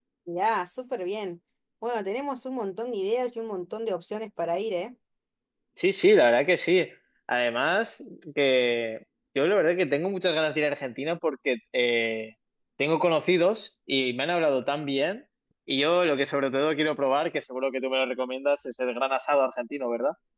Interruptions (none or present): none